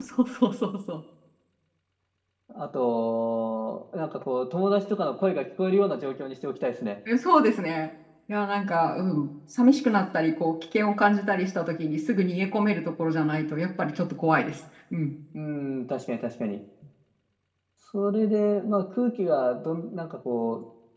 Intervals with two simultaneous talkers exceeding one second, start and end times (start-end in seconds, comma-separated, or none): none